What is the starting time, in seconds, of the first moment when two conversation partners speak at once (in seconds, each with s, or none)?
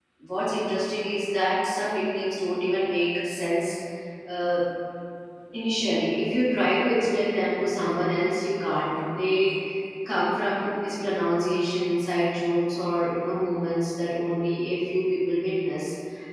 none